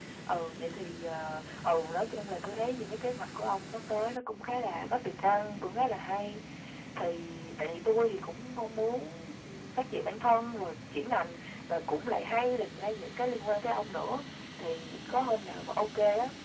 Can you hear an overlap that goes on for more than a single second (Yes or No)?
No